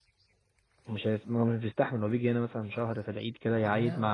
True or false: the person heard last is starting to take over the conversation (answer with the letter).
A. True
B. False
B